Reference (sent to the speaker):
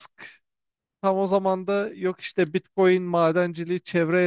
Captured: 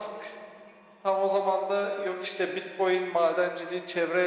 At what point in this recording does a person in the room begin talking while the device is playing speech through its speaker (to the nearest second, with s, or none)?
none